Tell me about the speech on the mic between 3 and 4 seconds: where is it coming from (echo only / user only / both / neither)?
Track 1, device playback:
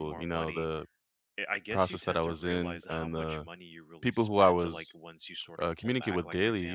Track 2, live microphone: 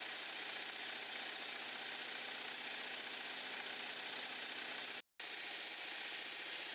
neither